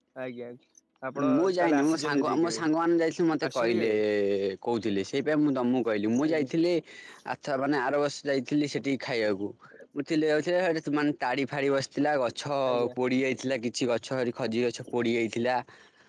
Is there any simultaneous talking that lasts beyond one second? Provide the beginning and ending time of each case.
1.4-2.6

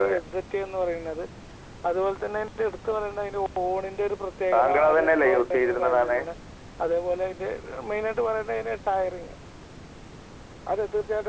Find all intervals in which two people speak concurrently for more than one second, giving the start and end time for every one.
4.5-6.2

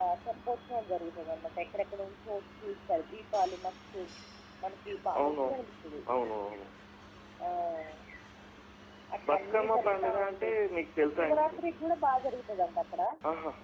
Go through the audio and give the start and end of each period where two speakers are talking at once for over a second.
9.3-10.6

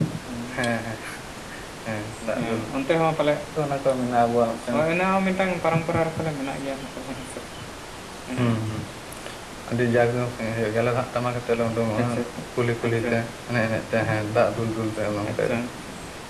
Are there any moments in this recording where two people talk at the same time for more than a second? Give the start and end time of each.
none

